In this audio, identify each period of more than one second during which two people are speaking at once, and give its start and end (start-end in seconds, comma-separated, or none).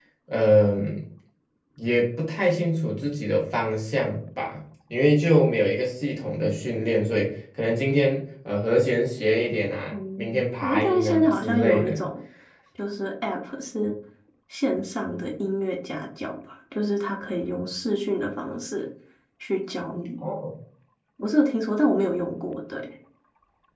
9.9-12.0